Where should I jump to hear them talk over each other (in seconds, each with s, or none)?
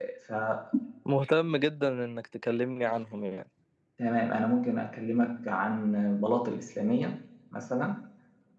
none